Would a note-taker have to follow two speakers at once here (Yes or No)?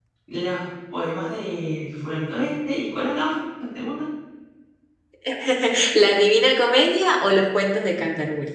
No